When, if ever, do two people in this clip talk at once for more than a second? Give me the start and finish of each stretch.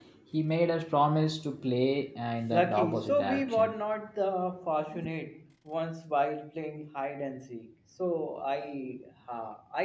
2.5-3.7

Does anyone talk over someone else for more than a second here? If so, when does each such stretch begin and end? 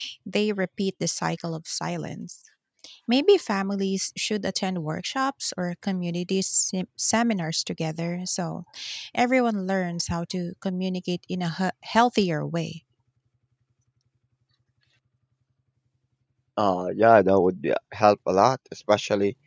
none

